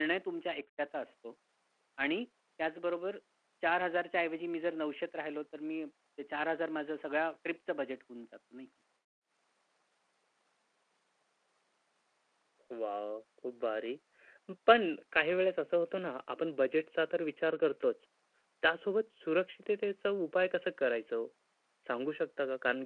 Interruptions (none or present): none